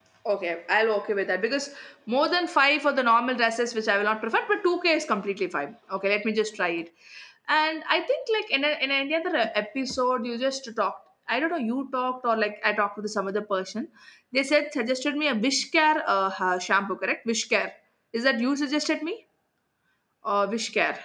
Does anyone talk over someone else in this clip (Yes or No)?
No